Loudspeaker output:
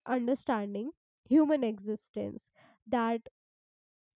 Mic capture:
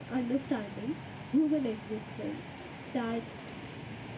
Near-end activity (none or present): none